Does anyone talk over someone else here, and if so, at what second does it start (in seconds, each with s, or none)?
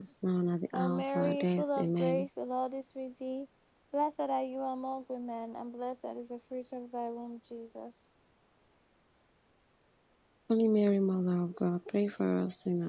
0.7 s